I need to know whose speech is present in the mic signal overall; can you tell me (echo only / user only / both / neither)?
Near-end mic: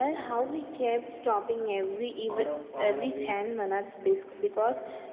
both